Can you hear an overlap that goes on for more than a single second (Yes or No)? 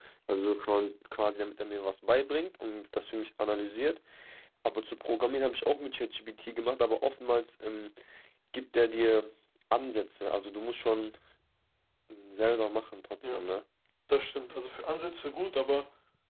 No